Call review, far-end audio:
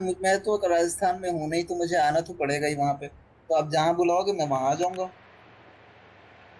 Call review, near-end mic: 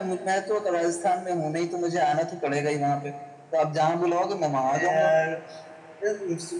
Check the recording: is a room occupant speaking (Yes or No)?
Yes